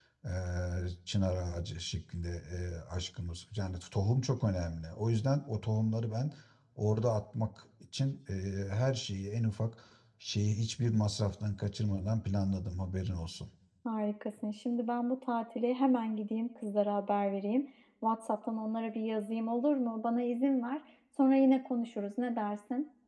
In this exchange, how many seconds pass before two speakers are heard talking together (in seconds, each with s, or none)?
none